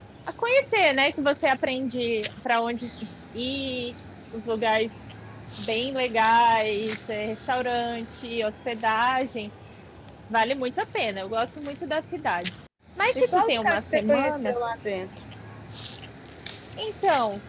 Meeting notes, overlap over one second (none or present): present